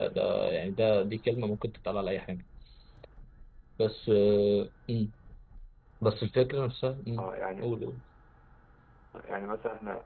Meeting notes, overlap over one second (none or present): none